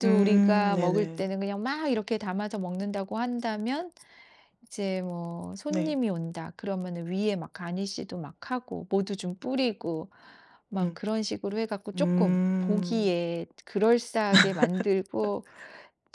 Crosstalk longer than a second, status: present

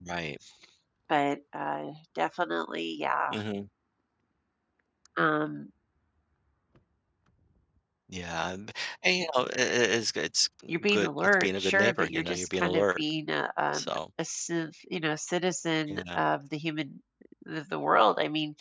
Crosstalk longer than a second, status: present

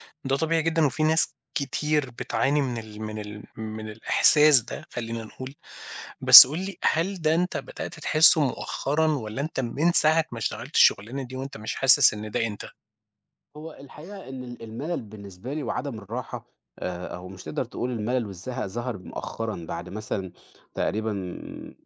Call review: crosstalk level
none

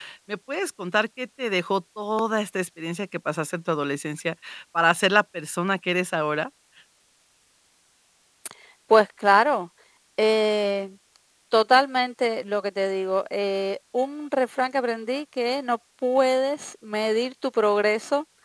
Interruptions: none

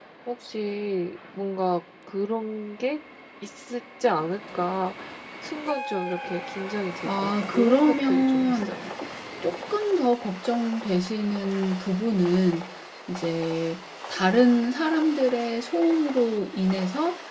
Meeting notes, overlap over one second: present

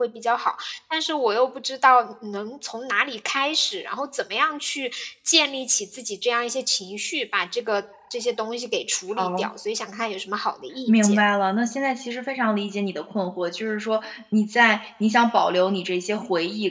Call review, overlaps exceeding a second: none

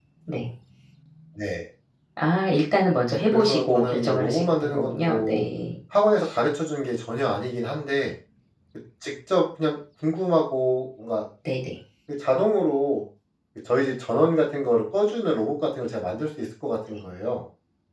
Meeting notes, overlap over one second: present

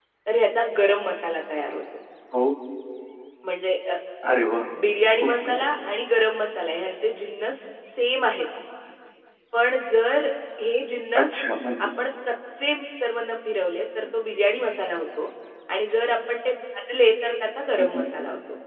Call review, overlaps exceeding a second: none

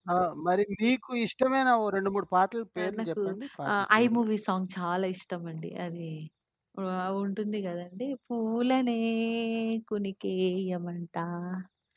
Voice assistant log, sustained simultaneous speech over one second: none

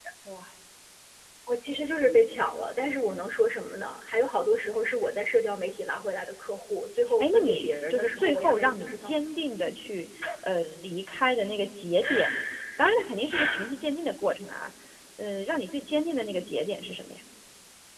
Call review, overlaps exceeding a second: present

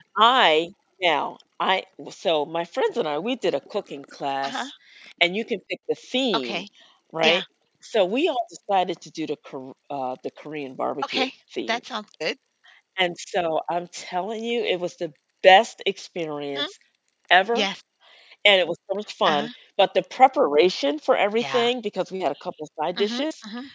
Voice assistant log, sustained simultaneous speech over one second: none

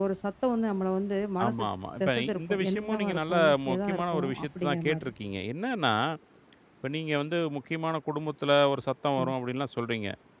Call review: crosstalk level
present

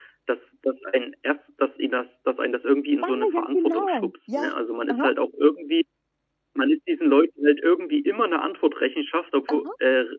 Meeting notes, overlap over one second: present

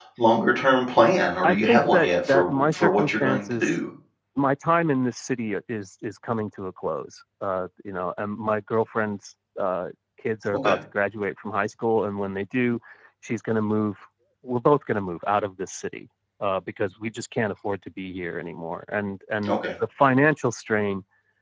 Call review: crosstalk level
present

